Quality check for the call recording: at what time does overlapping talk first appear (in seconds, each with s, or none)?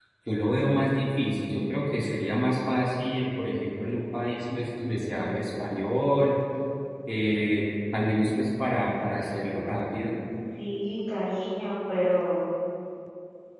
none